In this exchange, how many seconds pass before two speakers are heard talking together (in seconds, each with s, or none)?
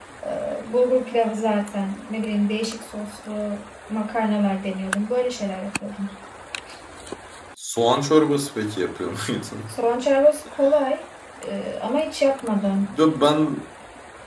none